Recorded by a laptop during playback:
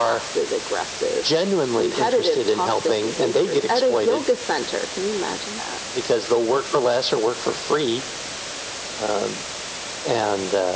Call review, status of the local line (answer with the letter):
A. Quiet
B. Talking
A